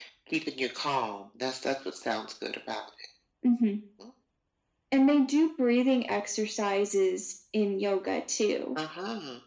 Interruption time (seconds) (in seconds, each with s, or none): none